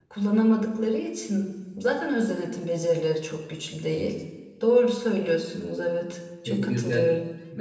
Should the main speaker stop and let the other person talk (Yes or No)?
Yes